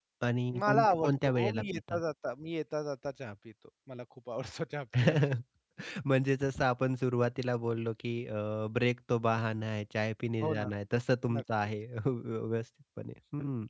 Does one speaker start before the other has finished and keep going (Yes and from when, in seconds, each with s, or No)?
Yes, from 0.6 s